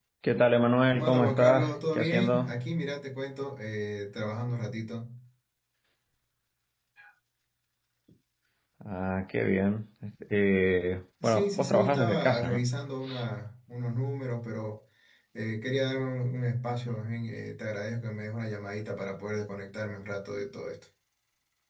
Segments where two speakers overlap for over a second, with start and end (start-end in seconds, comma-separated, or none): 0.9-2.6, 11.2-12.7